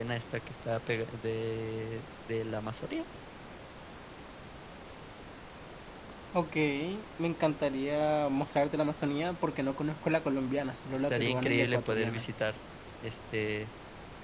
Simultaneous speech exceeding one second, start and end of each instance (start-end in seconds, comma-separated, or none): 10.9-12.2